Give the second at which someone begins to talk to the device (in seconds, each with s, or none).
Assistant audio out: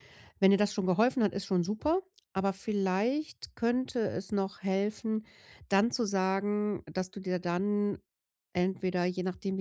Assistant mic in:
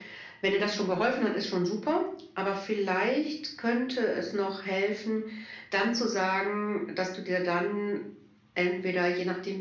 none